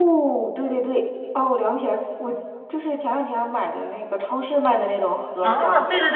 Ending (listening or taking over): taking over